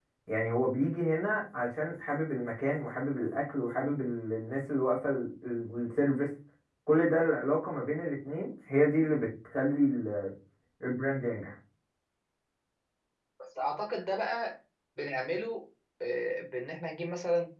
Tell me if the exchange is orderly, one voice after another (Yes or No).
Yes